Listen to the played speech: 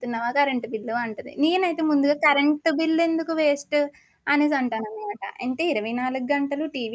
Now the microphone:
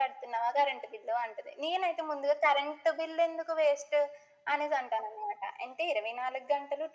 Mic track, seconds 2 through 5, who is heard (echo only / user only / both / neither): echo only